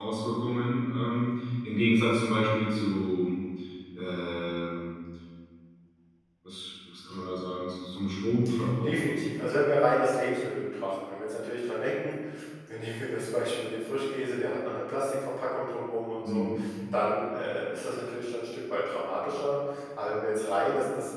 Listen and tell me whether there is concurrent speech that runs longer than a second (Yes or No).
No